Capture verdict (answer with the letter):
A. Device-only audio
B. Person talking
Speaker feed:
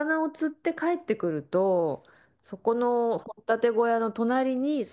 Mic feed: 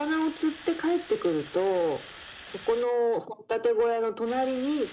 A